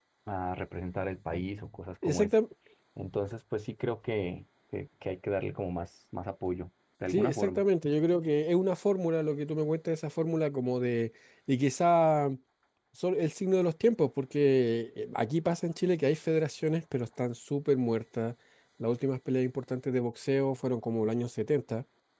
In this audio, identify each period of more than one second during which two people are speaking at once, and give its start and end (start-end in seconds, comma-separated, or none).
none